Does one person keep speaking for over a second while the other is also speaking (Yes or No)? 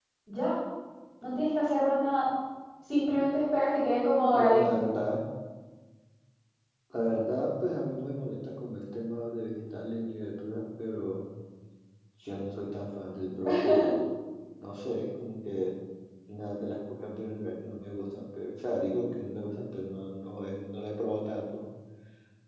No